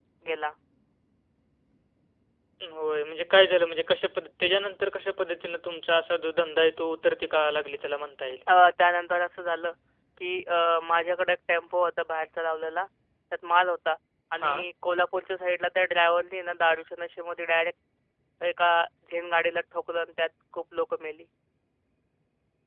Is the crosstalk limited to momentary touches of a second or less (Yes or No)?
Yes